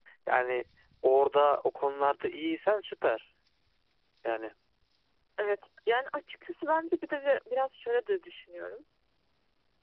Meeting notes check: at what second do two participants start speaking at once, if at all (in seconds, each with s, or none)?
none